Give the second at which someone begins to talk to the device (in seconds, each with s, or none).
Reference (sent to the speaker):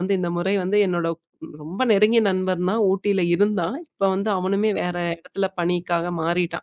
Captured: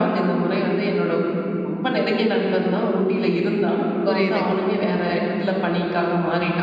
4.0 s